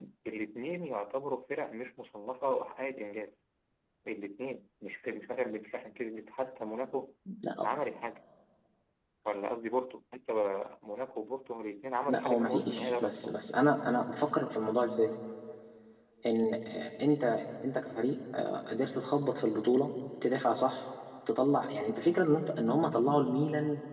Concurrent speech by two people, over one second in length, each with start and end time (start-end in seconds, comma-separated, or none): 12.1-13.4